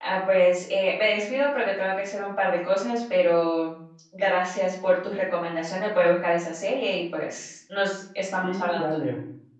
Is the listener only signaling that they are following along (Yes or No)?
No